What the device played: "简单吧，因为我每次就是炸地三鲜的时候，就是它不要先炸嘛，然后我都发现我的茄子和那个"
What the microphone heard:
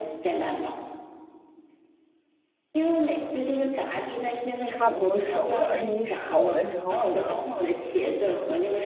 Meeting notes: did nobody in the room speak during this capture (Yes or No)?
No